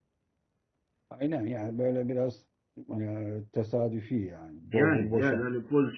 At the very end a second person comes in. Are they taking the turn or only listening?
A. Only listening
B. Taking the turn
B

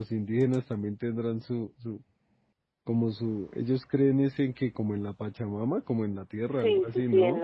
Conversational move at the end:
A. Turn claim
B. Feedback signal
A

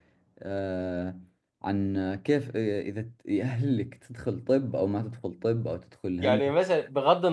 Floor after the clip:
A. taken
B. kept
A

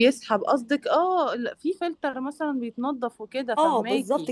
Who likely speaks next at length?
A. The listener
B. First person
A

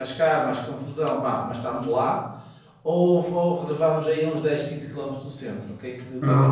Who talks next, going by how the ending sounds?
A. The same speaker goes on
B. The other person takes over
B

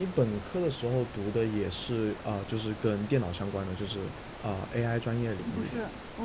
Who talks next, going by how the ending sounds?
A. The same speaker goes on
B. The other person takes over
B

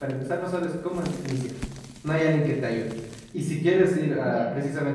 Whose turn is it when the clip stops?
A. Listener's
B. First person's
B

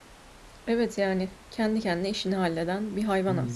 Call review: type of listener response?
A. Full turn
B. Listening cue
A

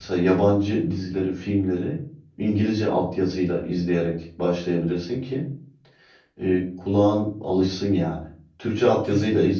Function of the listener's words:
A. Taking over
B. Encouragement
B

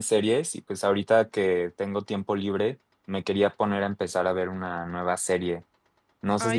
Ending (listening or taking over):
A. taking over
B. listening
B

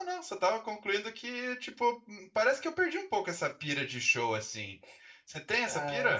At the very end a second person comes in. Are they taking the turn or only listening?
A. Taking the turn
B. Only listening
A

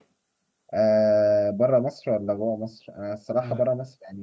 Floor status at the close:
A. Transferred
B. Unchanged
B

